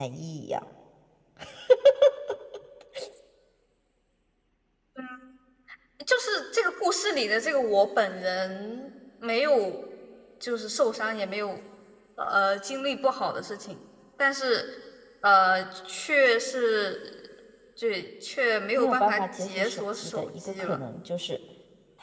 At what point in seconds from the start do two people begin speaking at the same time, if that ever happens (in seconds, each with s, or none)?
18.8 s